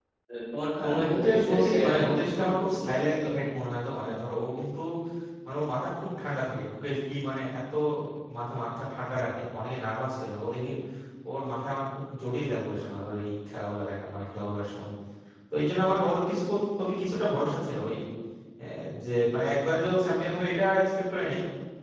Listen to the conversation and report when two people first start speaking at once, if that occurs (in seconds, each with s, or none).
0.8 s